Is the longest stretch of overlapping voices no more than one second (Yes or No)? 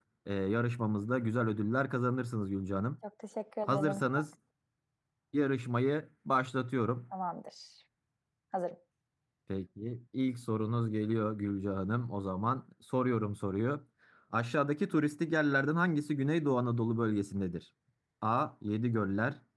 Yes